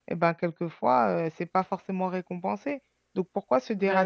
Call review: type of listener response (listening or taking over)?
listening